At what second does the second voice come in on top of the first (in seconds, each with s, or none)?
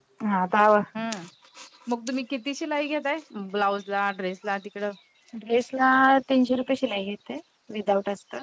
none